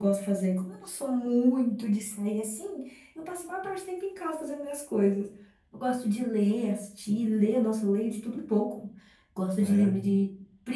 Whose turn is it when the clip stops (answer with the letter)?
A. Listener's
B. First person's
B